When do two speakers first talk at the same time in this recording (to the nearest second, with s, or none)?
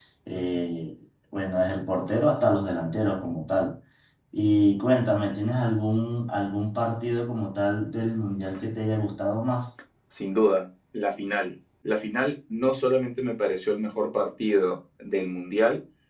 none